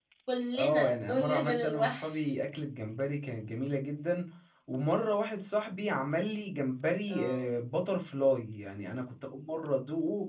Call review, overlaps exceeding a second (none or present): present